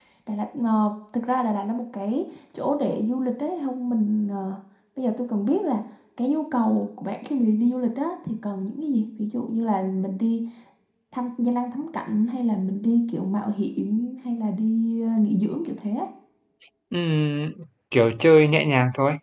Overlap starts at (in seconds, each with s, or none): none